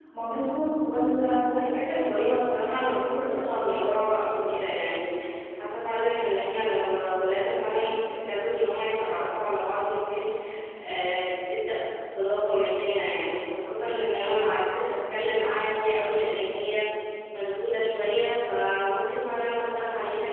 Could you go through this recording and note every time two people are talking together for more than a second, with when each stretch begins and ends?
1.6-4.0

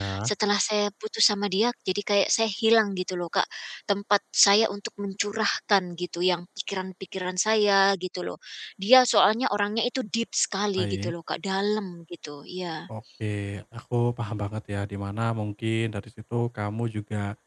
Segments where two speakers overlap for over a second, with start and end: none

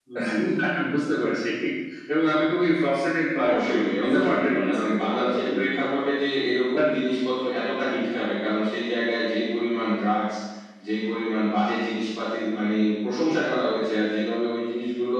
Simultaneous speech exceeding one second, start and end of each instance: 3.5-5.7

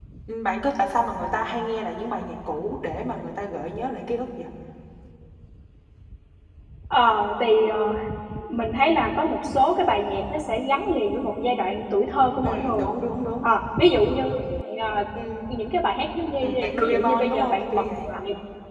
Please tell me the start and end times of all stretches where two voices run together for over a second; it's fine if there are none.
16.4-18.1

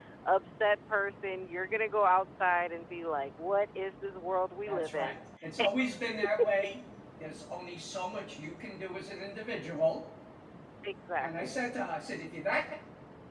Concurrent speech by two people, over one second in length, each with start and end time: none

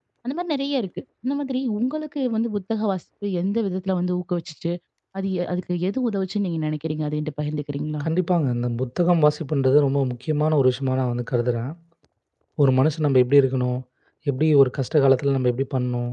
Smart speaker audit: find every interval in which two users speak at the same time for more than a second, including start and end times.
none

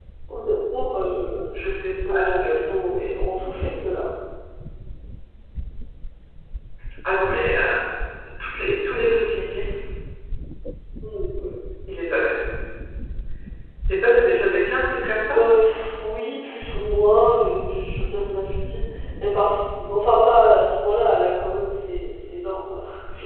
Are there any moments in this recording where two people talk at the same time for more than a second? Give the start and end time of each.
1.6-3.1

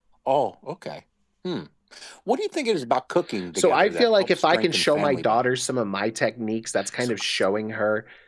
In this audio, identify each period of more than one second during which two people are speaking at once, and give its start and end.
3.5-5.5

